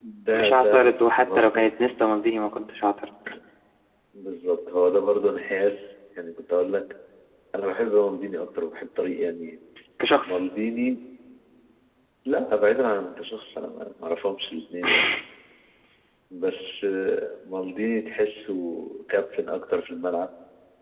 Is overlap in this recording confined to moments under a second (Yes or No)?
No